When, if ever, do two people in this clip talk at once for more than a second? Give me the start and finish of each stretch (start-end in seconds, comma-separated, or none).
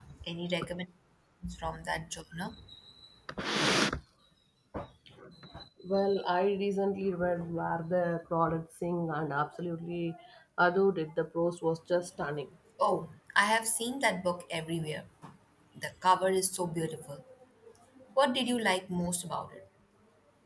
none